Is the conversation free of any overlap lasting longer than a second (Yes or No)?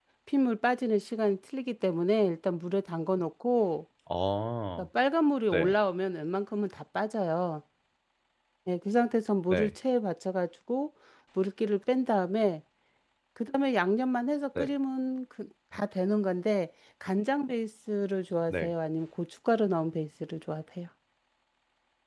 Yes